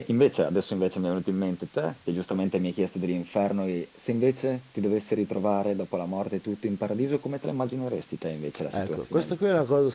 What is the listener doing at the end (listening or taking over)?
taking over